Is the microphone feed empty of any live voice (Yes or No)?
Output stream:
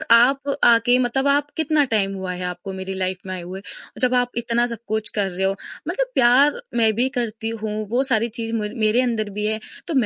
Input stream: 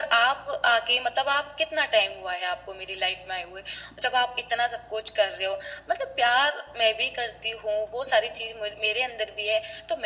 Yes